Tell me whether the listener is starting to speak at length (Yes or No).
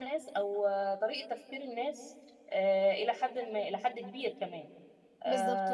Yes